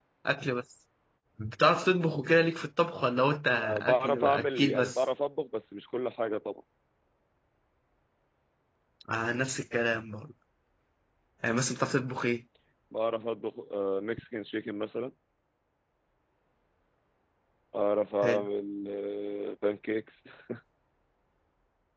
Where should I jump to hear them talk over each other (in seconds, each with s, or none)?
3.6 s